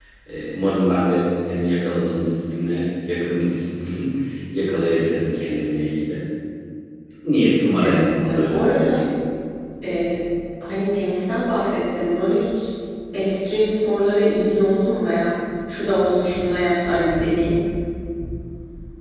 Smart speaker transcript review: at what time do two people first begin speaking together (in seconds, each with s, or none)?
7.8 s